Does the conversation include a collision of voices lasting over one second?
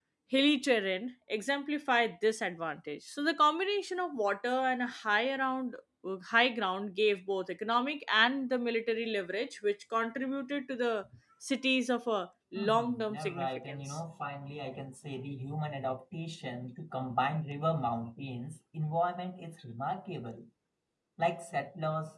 Yes, from 12.5 s

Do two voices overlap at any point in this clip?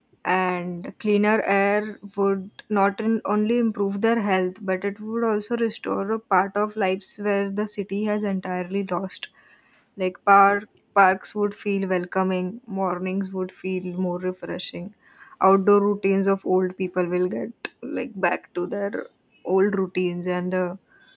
No

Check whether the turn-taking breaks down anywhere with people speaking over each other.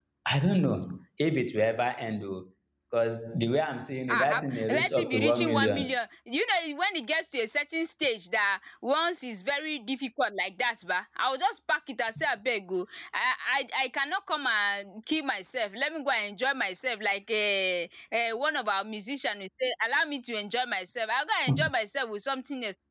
Yes, from 4.1 s

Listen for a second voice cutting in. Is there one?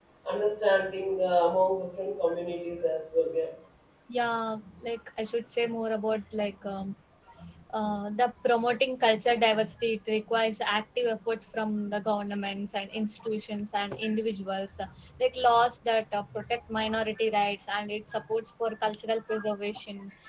No

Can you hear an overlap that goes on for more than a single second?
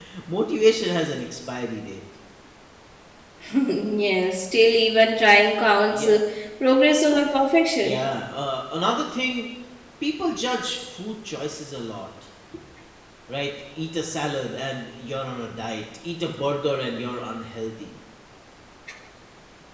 No

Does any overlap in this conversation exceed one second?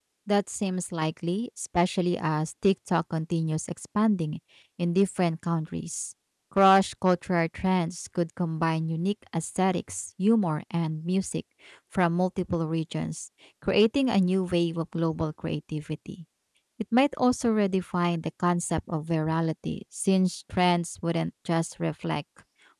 No

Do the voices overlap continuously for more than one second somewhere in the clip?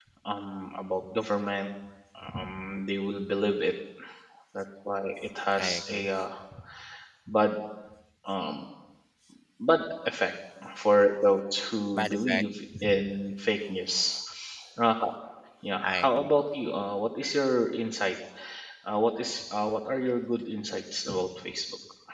No

